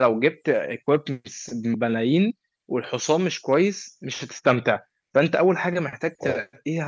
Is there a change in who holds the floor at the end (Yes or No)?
No